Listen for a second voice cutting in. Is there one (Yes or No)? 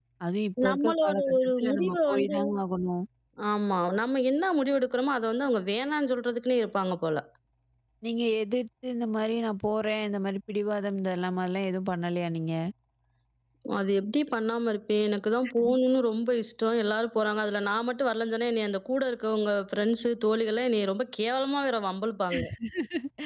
Yes